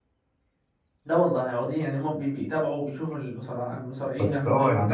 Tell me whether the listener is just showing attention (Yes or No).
No